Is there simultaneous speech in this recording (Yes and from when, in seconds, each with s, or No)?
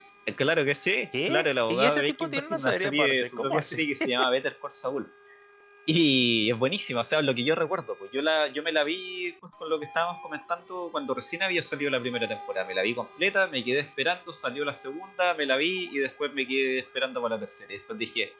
Yes, from 1.3 s